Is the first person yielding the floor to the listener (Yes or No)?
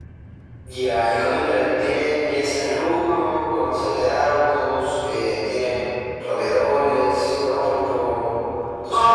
Yes